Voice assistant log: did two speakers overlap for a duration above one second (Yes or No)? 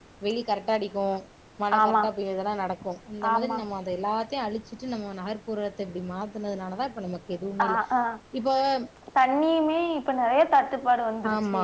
No